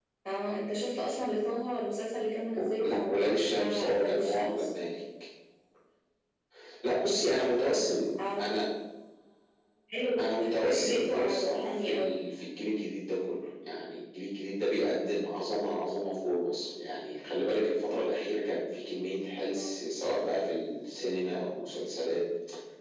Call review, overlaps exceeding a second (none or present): present